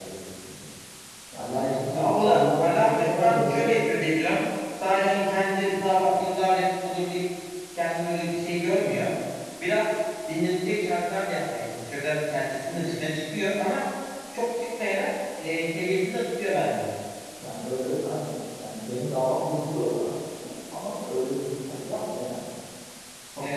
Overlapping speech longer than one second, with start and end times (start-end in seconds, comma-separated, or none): 1.5-3.7